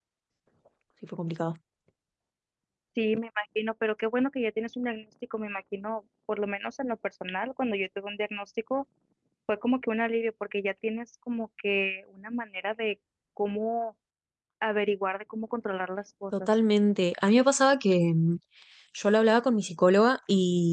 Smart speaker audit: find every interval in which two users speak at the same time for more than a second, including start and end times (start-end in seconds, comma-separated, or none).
none